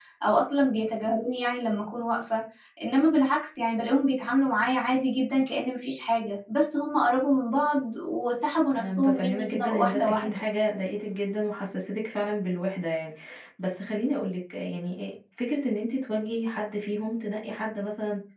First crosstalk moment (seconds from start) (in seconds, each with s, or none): 8.7 s